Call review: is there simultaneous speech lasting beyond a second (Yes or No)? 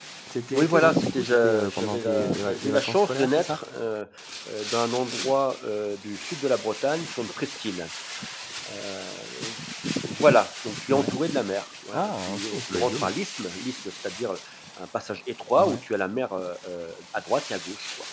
Yes